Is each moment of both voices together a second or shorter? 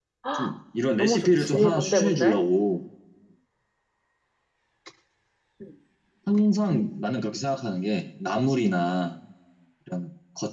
No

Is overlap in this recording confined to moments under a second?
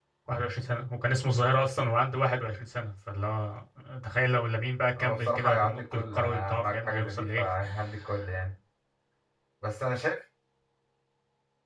No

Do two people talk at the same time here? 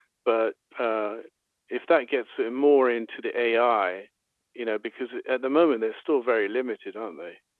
No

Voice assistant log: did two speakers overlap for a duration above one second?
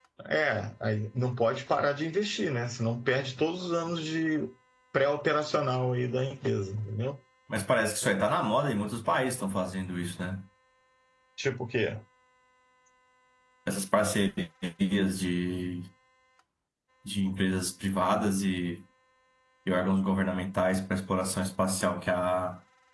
No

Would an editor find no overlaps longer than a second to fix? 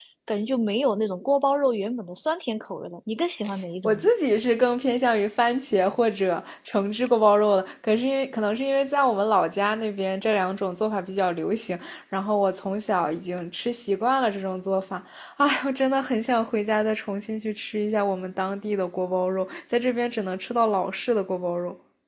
Yes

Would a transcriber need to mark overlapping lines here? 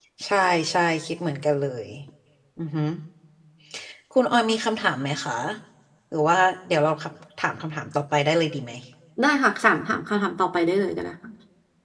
No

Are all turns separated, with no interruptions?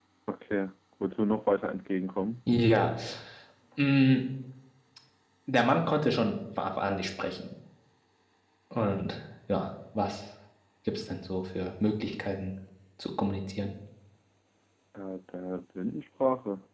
Yes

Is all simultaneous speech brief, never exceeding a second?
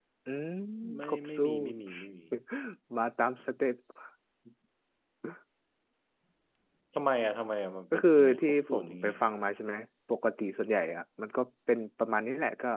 No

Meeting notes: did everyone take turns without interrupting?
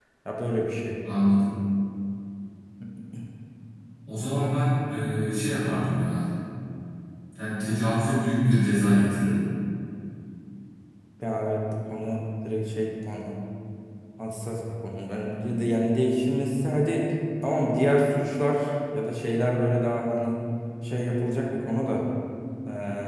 Yes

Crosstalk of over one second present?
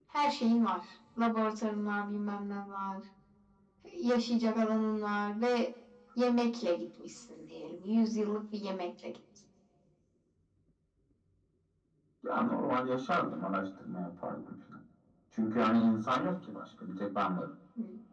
No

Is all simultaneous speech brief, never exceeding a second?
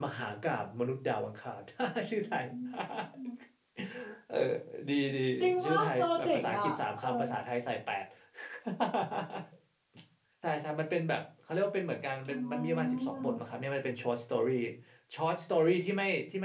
No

